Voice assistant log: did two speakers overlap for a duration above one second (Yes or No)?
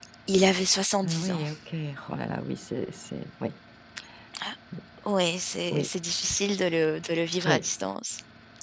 No